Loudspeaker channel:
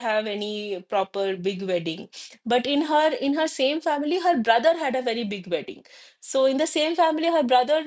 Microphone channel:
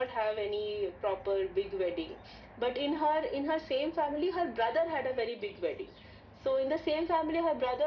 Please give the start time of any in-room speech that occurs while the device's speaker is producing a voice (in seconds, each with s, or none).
none